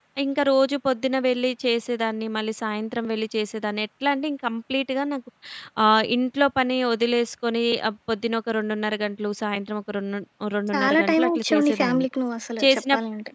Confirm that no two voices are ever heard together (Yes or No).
No